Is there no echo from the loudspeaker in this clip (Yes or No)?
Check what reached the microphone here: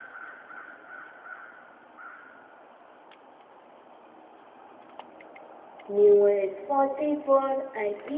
Yes